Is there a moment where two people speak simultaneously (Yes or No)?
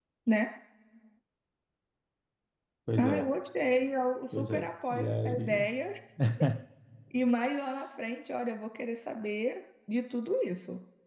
Yes